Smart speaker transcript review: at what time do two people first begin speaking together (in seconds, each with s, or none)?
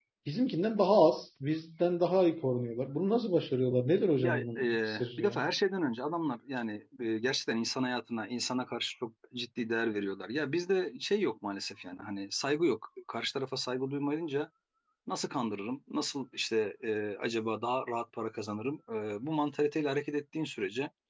4.2 s